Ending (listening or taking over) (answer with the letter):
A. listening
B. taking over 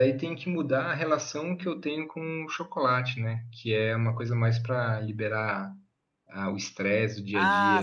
B